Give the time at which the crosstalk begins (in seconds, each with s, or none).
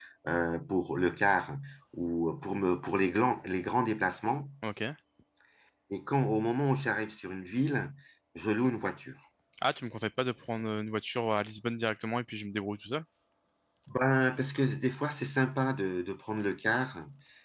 none